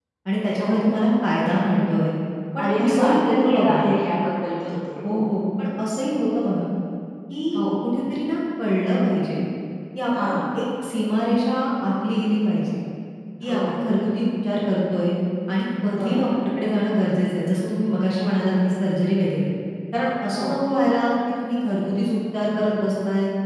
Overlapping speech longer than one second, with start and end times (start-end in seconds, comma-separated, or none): 2.6-3.8